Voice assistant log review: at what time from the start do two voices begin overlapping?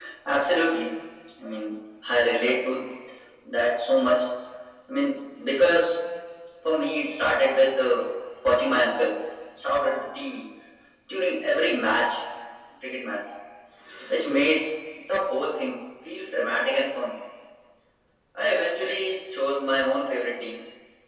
none

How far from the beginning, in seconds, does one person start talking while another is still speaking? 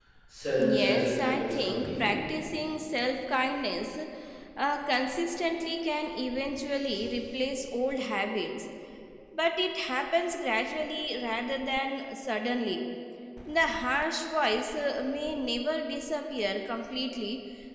0.6 s

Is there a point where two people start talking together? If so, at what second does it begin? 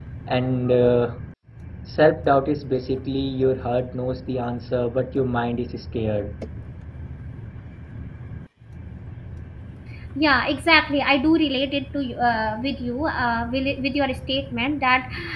none

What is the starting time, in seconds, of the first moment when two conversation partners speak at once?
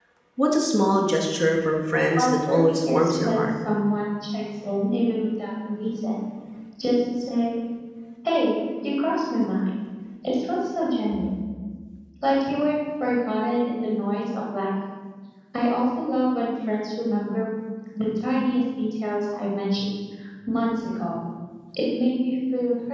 2.2 s

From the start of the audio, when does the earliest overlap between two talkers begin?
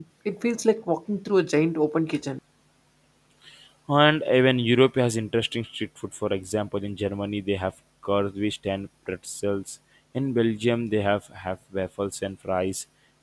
none

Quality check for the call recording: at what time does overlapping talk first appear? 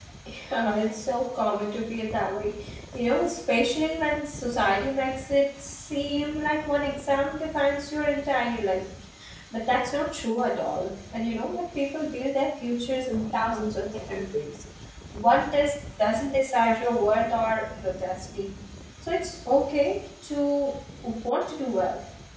none

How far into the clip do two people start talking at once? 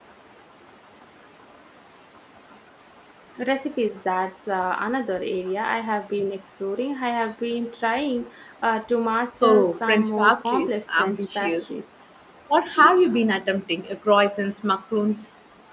9.4 s

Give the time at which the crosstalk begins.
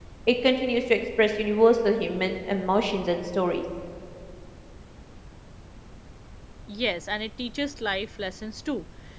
none

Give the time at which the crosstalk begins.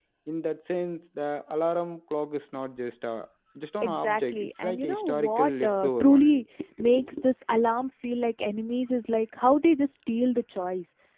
3.8 s

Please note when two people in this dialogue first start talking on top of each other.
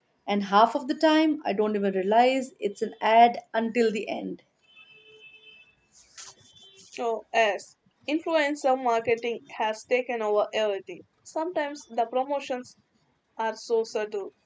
none

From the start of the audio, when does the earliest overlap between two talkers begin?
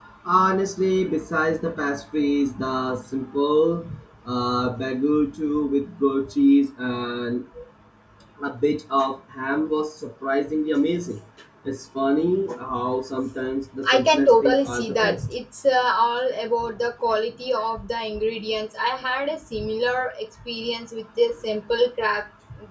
13.8 s

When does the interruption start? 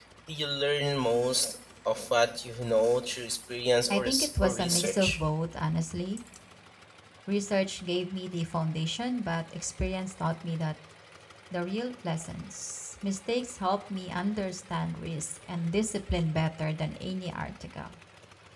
3.9 s

